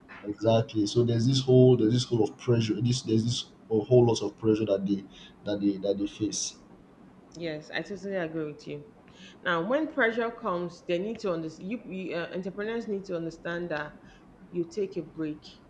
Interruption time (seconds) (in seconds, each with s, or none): none